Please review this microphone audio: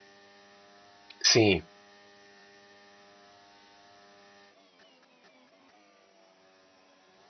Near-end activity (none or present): present